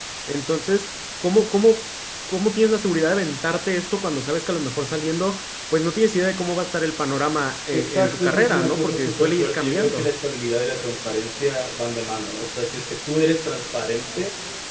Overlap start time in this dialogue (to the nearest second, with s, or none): 8 s